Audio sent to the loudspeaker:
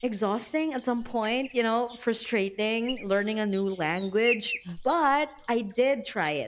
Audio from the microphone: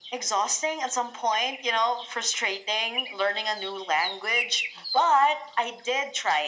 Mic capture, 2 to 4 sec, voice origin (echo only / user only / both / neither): echo only